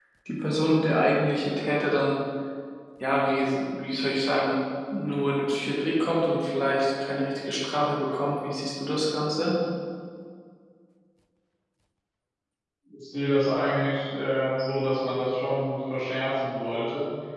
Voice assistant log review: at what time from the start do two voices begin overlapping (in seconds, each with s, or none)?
none